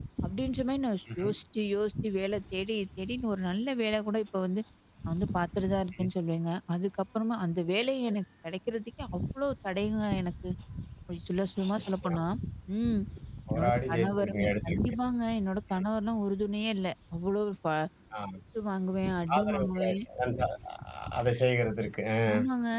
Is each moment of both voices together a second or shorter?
No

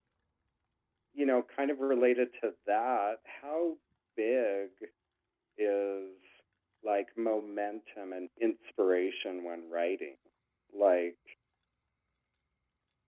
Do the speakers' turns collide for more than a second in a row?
No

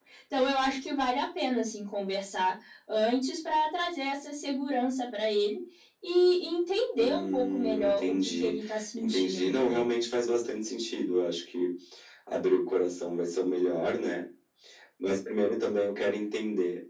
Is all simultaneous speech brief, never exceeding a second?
No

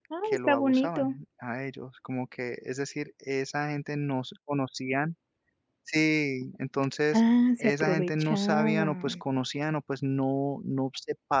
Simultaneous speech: Yes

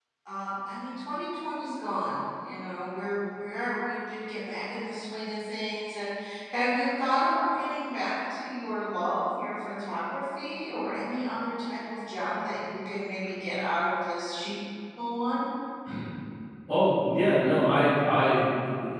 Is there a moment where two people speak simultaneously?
No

